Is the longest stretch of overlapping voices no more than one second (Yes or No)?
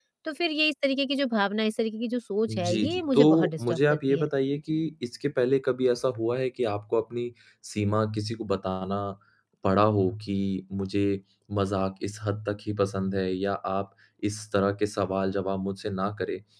No